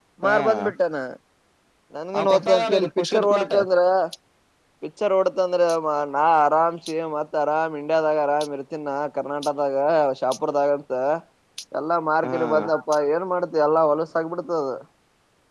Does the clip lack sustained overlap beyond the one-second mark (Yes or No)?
No